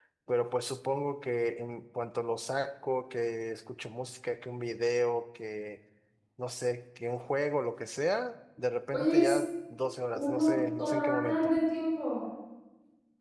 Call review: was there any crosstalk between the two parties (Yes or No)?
Yes